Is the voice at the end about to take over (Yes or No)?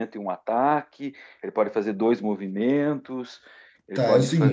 Yes